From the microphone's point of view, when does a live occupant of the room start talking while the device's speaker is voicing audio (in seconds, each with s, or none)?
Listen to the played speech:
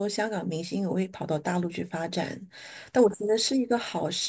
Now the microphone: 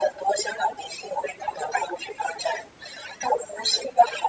none